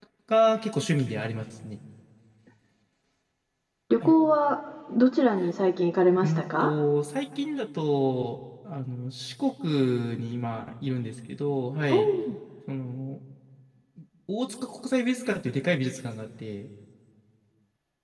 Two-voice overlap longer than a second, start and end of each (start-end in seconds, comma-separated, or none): none